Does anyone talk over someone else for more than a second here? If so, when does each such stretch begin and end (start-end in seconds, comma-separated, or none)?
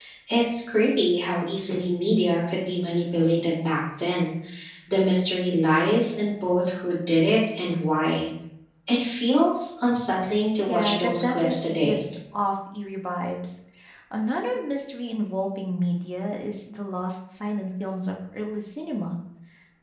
10.7-12.0